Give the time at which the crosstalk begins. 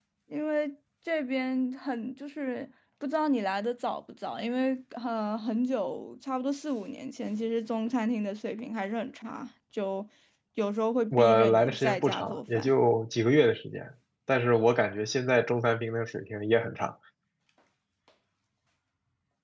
11.1 s

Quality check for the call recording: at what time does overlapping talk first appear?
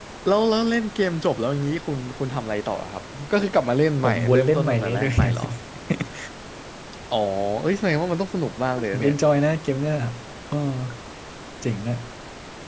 4.0 s

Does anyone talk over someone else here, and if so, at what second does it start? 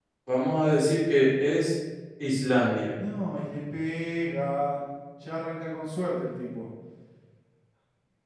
none

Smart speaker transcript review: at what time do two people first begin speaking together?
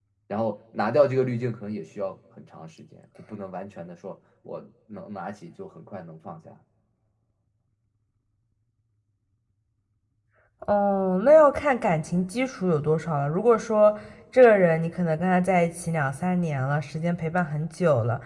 none

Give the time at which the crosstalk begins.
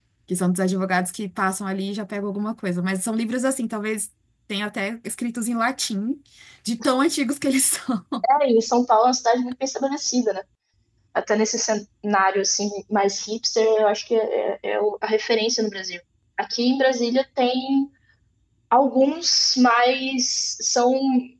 none

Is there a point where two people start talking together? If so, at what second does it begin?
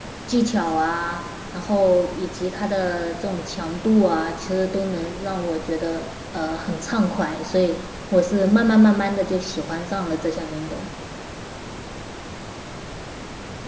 none

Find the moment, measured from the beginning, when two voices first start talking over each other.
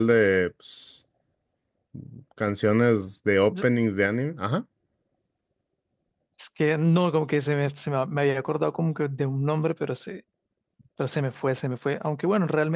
none

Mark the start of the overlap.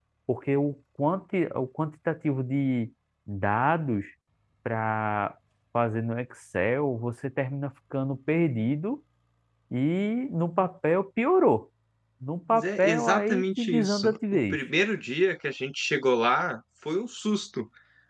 12.5 s

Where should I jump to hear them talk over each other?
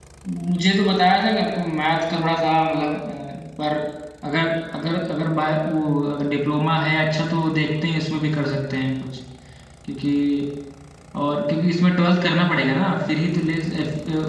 none

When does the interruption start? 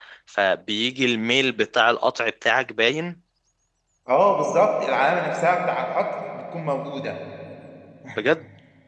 none

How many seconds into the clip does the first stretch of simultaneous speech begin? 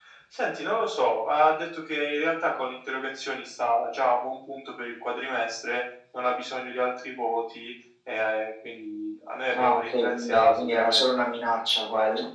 9.5 s

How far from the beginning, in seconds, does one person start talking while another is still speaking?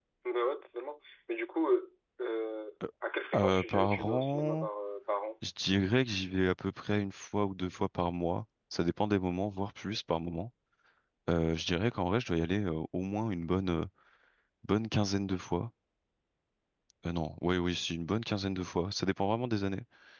3.4 s

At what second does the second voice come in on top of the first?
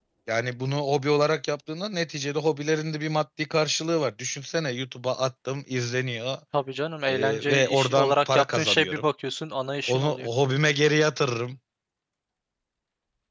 7.1 s

